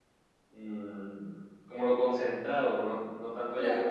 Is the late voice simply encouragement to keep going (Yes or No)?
No